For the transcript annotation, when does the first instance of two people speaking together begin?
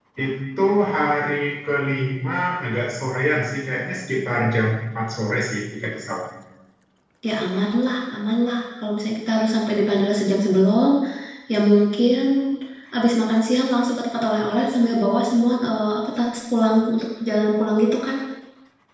none

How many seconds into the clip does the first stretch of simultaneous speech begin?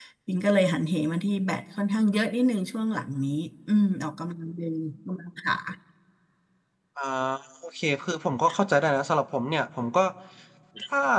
none

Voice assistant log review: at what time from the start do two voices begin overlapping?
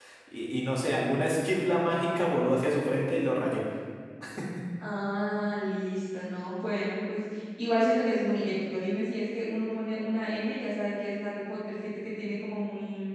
none

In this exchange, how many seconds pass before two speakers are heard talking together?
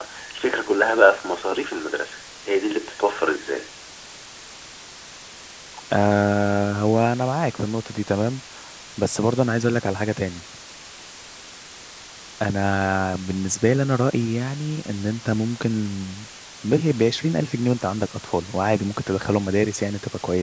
none

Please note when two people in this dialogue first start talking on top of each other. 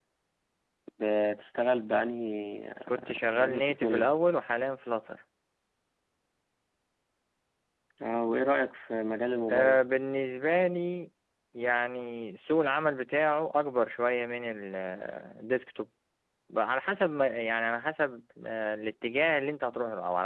2.9 s

